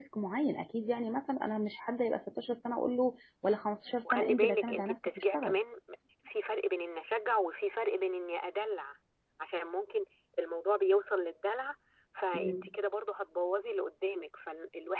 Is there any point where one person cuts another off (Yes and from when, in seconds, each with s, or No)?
Yes, from 4.1 s